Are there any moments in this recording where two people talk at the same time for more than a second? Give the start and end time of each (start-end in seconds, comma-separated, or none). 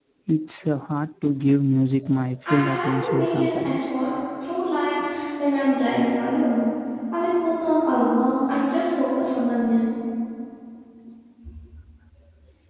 2.5-3.9